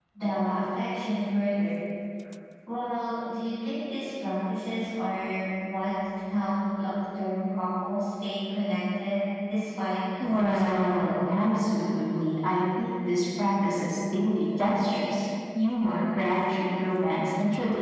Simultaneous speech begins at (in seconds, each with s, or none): 10.2 s